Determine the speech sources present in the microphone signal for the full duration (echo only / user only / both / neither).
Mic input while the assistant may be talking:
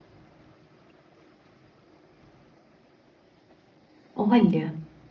user only